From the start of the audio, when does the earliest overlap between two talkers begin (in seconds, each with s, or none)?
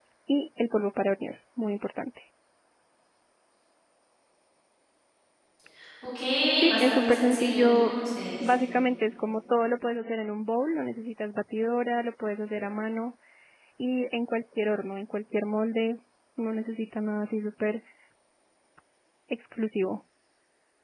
6.7 s